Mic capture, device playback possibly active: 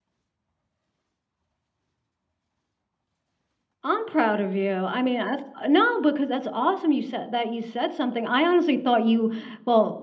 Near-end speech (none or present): present